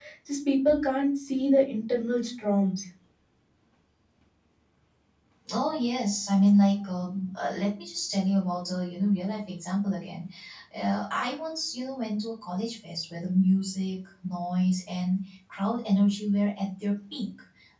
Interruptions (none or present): none